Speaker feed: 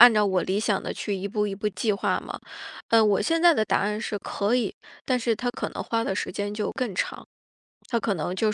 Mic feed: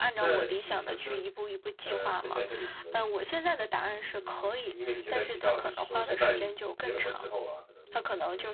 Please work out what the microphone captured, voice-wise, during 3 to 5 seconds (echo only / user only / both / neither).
both